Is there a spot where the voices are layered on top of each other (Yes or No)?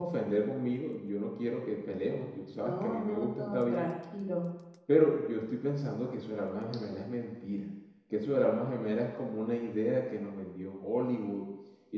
Yes